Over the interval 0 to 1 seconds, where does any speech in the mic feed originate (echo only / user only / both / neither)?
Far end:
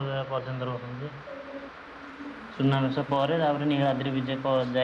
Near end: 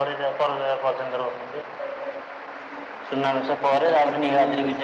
echo only